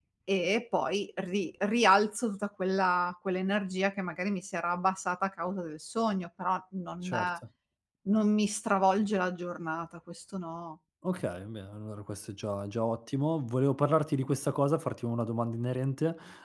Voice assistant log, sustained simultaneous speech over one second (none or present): none